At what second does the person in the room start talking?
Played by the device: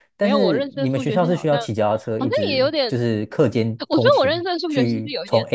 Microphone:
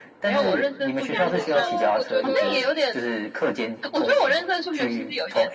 1.0 s

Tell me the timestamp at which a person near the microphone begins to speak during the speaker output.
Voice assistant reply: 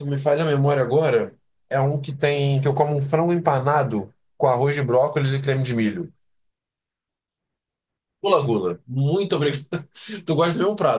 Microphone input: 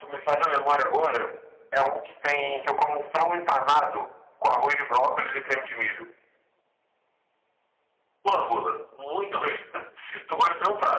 none

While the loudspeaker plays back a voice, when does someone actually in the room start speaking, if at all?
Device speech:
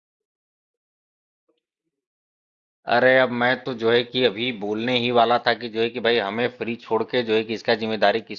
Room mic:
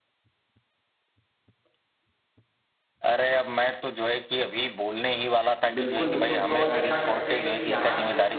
5.6 s

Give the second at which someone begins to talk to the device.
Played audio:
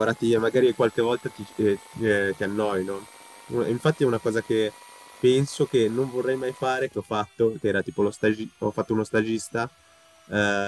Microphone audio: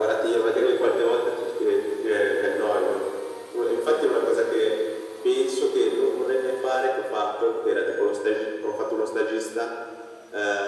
none

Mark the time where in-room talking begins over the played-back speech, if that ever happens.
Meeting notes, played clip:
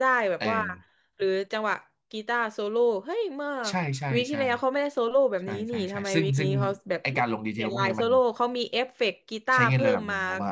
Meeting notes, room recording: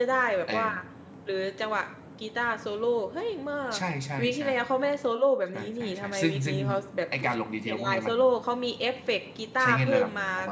none

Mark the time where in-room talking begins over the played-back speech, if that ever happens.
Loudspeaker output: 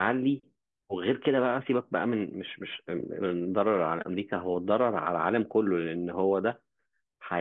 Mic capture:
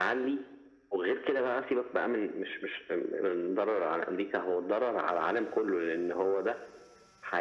none

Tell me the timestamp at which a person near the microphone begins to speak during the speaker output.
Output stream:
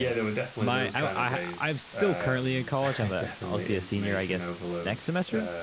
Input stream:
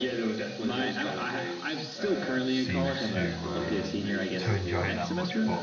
2.4 s

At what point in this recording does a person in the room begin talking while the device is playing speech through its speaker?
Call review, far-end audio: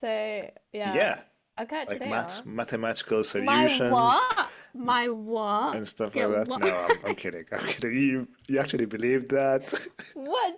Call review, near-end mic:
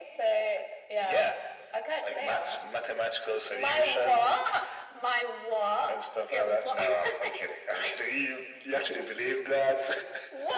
none

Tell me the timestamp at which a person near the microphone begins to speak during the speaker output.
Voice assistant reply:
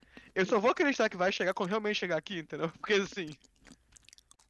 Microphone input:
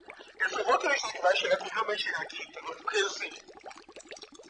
none

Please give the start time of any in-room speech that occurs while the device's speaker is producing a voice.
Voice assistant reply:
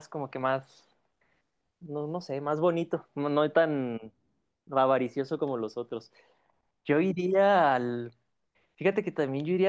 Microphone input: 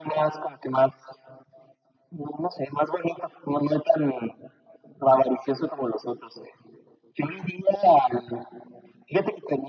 none

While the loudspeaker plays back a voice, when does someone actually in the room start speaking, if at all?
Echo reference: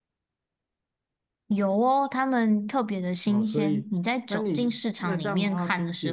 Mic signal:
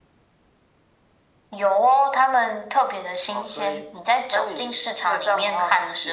none

